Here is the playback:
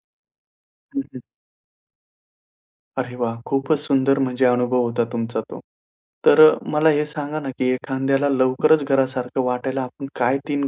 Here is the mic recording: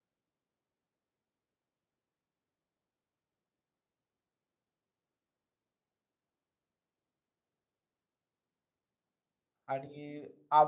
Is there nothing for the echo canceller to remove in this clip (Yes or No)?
Yes